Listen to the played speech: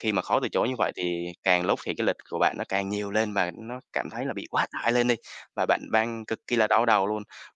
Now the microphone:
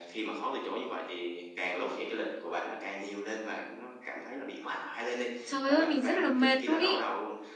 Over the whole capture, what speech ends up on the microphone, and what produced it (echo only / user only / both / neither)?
both